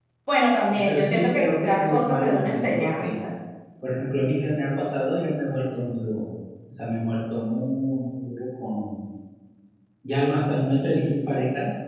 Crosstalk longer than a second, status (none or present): present